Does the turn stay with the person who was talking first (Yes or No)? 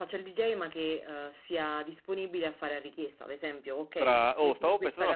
No